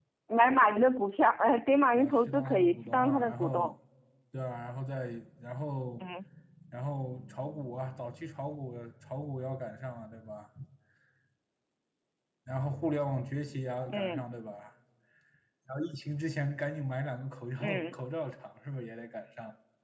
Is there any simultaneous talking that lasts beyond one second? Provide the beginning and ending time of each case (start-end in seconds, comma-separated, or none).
1.9-3.7